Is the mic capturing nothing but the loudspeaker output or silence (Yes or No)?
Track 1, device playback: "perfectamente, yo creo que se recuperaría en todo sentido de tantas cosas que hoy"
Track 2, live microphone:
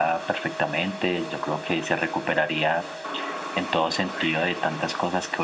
Yes